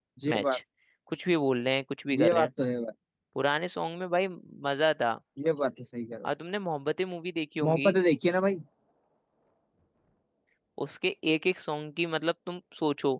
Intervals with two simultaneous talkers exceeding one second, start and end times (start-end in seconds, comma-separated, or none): none